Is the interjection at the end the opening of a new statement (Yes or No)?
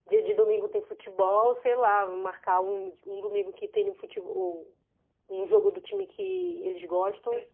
No